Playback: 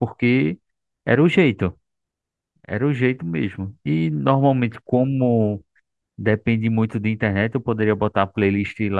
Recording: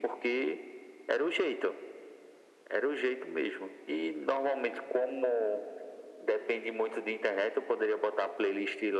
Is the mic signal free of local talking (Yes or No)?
Yes